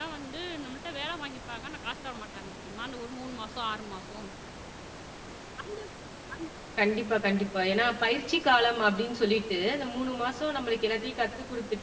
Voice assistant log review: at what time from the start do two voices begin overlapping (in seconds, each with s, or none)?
none